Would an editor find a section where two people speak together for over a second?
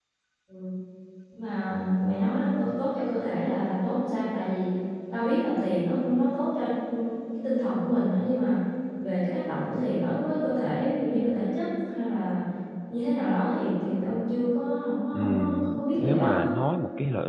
Yes, from 15.1 s

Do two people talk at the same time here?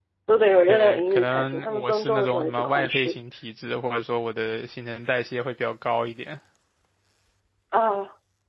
Yes, from 0.7 s

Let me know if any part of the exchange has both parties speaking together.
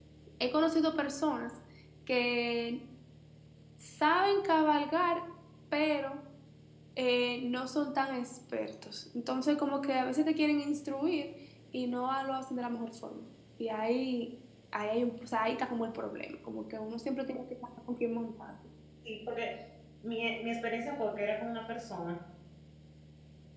No

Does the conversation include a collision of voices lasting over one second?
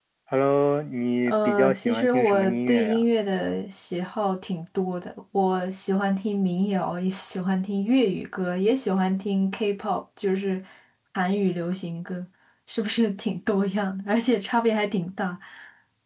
Yes, from 1.3 s

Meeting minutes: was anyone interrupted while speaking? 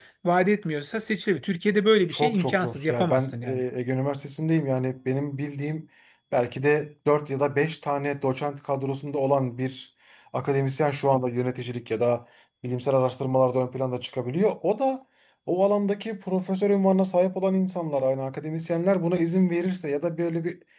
Yes, from 2.1 s

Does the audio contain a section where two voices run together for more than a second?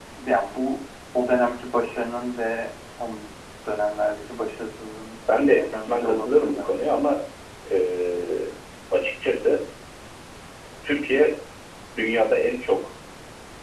Yes, from 5.3 s

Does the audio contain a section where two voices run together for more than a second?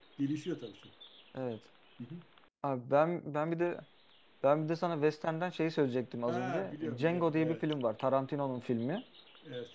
Yes, from 6.3 s

